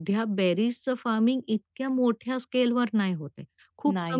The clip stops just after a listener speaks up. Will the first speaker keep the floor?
Yes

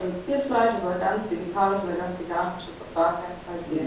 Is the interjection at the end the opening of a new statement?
Yes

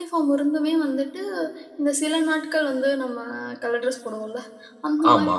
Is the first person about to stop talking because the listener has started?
No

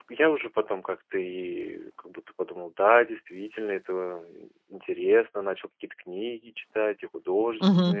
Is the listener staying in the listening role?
Yes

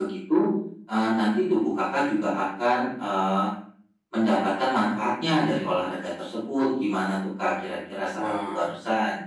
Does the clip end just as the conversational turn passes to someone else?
Yes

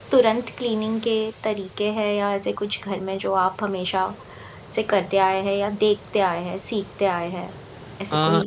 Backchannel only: No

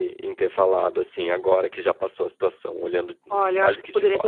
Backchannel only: No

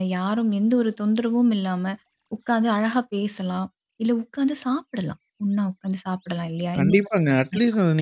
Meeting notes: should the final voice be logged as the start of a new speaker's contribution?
Yes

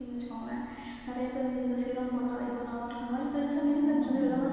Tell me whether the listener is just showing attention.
No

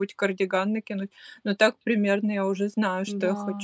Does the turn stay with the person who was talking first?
No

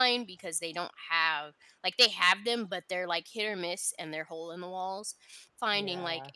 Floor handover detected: No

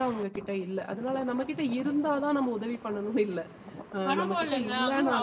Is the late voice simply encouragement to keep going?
No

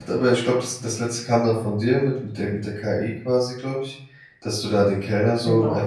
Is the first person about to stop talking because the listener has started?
No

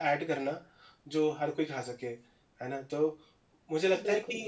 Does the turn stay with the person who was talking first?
Yes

